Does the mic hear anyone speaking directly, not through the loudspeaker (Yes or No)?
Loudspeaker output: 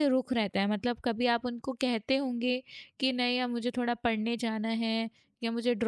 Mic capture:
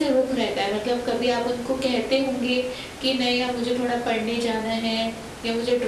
No